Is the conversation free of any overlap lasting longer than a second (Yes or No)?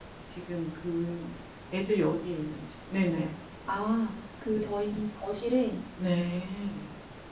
Yes